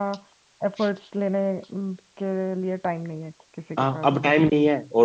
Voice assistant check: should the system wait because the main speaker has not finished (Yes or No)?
No